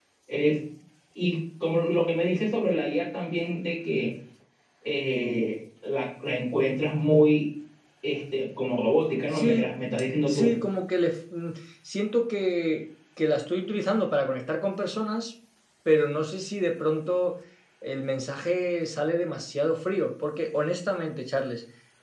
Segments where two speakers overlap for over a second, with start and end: 9.3-10.5

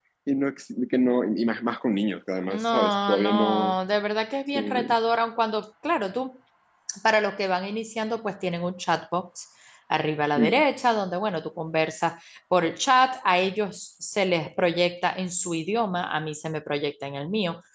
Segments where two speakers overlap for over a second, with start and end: 2.5-3.7

